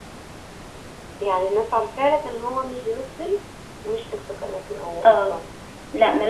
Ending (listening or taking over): taking over